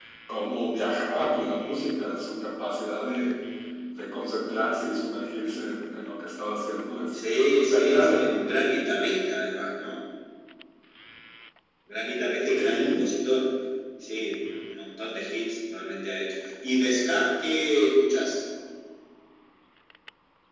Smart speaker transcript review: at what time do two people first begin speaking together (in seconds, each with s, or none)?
7.3 s